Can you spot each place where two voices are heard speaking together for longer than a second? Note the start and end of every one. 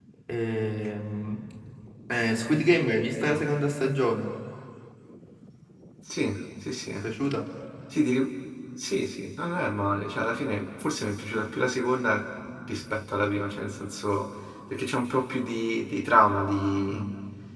none

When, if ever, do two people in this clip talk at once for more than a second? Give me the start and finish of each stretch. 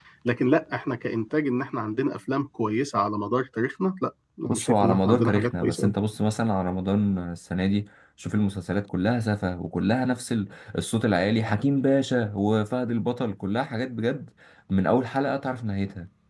4.5-5.9

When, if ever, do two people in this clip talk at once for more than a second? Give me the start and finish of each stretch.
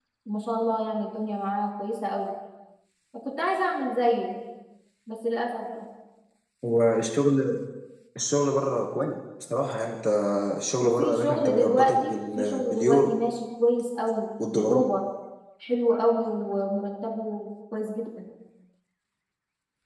10.8-13.1

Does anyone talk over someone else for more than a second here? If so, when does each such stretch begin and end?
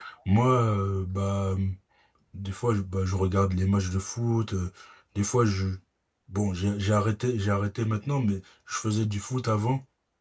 none

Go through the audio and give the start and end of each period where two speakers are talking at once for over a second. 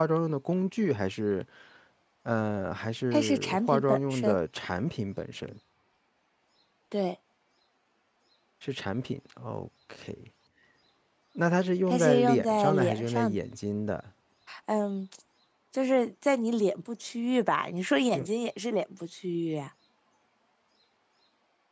3.1-4.3, 11.9-13.4

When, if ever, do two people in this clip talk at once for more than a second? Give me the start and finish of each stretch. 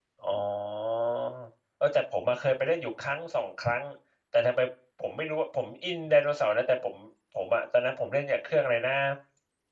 none

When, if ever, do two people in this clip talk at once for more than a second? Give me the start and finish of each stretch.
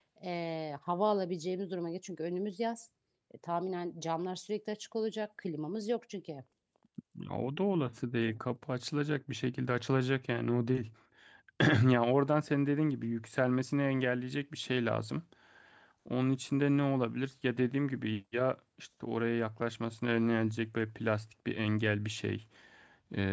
none

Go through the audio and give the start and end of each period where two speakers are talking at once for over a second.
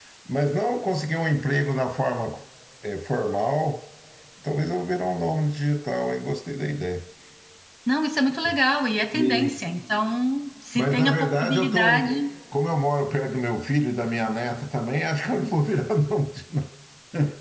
10.8-12.0

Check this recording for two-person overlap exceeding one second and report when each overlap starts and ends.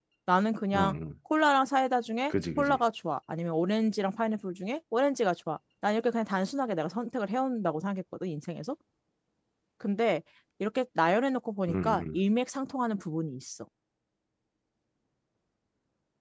none

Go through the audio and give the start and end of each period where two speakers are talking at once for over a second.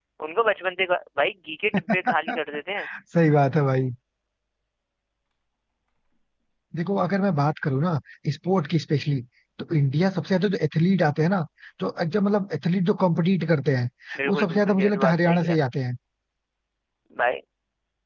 14.2-15.6

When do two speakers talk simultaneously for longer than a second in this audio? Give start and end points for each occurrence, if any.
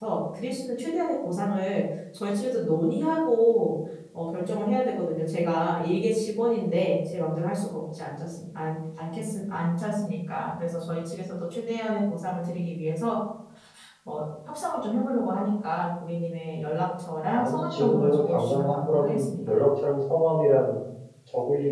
17.3-19.5

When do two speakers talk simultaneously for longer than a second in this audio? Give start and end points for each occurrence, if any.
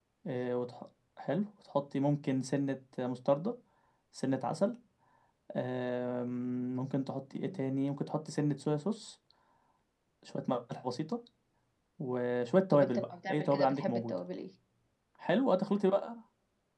12.7-14.1

